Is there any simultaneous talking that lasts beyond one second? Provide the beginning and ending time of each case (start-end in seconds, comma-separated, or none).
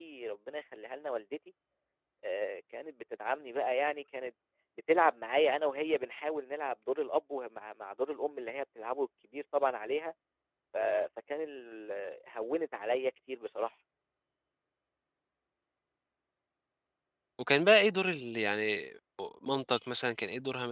none